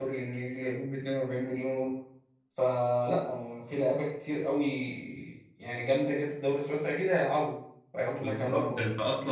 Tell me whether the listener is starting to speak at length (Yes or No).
Yes